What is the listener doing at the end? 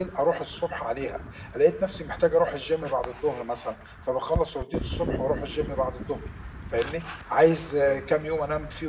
listening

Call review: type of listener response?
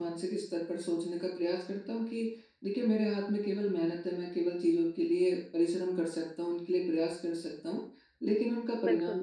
listening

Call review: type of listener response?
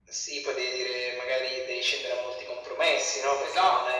listening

